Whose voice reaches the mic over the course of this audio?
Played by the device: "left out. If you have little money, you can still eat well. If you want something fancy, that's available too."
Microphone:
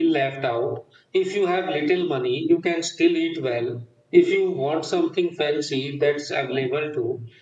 echo only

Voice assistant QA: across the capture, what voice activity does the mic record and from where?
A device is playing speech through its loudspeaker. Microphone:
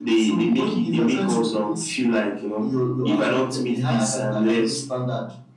echo only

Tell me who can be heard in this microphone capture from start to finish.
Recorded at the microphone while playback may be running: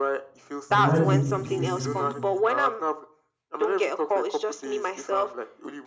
both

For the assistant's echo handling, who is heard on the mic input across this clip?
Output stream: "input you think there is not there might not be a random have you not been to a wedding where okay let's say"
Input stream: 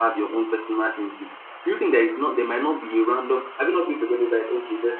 echo only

